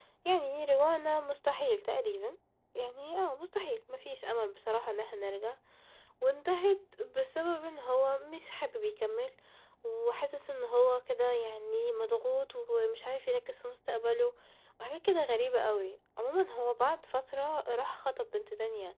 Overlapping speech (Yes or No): No